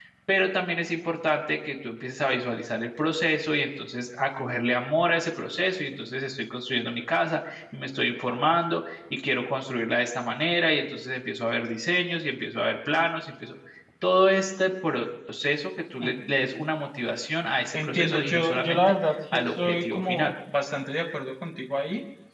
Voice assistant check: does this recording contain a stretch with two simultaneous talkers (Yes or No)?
Yes